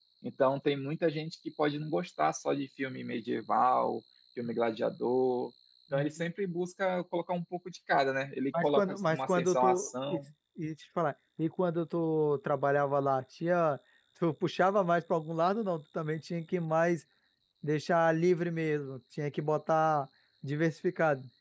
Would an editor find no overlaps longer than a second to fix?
No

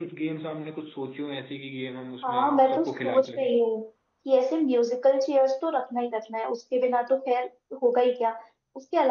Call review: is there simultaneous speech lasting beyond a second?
Yes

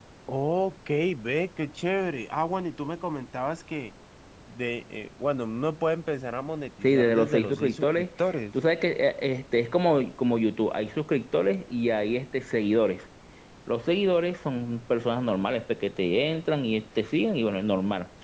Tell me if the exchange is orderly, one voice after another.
No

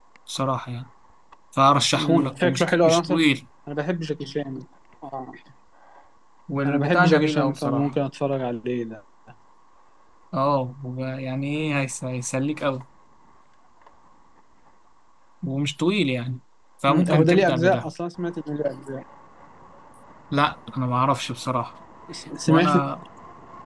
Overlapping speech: Yes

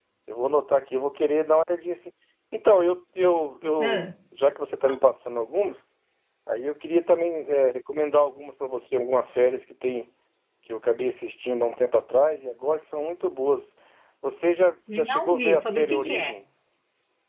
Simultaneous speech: Yes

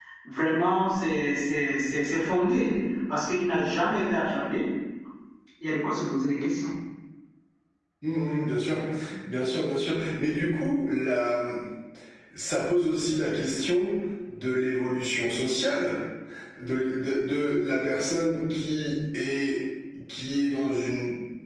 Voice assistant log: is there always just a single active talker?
Yes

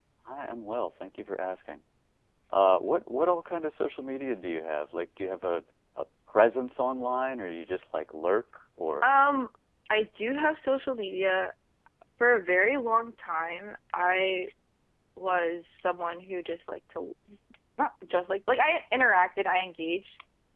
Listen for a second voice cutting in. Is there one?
No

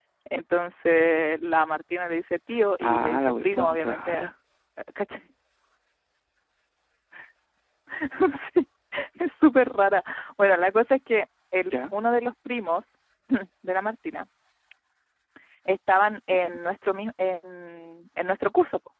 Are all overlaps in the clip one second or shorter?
No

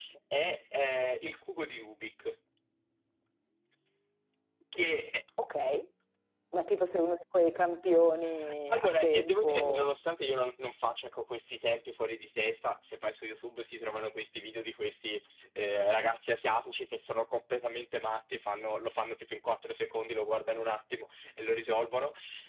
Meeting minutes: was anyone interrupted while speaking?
Yes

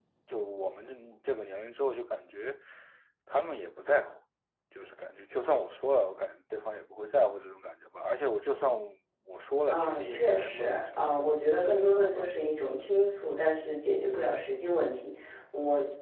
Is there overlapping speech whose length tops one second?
Yes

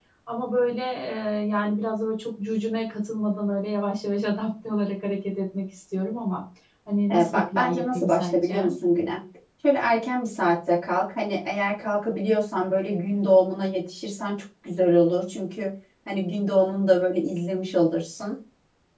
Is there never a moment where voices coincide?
No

